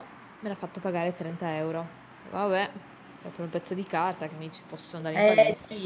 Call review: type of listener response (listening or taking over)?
taking over